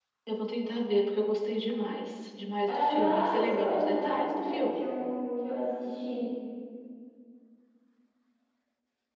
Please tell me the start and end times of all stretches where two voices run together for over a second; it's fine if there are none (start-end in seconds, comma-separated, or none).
2.7-4.9